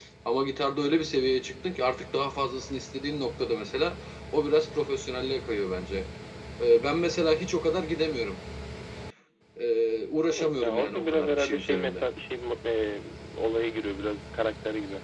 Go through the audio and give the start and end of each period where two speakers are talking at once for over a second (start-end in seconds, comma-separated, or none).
10.3-12.0